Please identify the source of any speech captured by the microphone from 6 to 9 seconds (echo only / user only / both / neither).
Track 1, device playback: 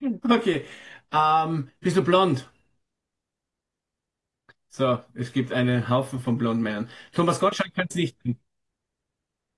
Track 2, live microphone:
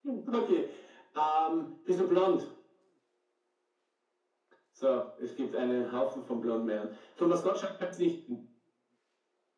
echo only